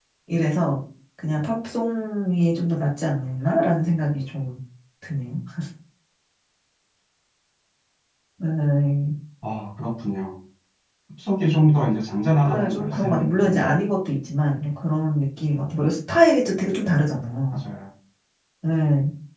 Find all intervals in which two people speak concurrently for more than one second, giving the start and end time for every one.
12.4-13.8

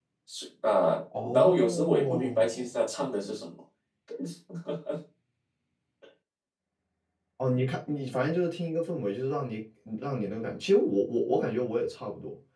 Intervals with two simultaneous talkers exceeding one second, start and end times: 1.3-2.7

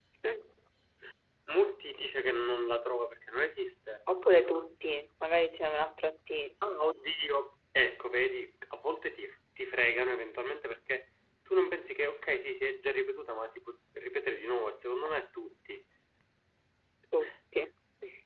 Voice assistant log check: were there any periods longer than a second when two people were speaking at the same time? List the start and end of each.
none

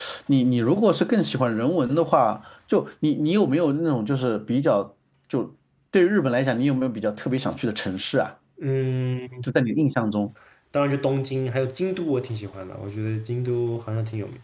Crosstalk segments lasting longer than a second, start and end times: none

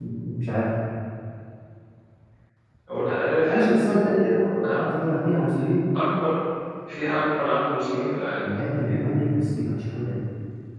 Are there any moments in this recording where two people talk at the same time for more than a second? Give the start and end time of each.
3.5-4.8

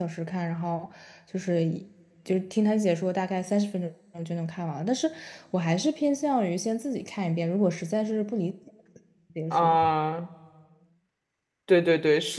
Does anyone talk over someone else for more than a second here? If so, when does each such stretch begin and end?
none

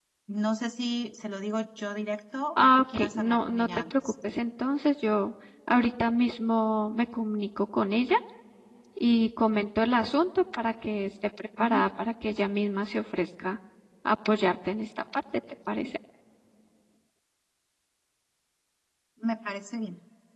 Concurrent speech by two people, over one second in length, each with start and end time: 2.6-4.1

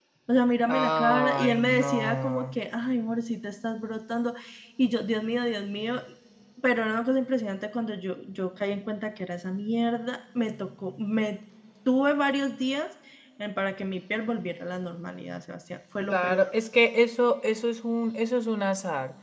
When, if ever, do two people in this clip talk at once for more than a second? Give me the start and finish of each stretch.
0.7-2.5

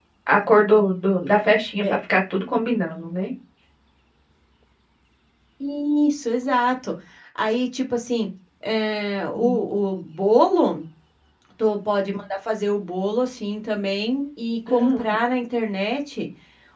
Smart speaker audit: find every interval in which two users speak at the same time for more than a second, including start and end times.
none

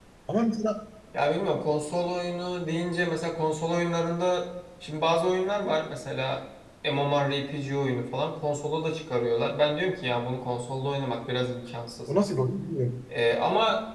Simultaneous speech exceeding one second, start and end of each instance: none

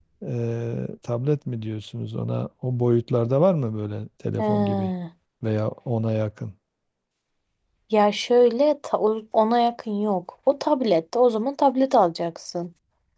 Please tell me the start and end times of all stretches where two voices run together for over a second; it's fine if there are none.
none

